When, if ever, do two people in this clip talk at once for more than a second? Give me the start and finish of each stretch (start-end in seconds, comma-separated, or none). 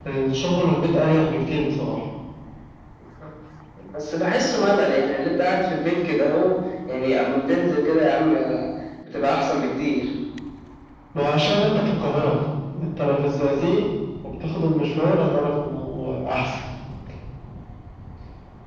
none